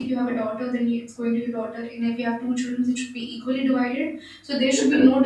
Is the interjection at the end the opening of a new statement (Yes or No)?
No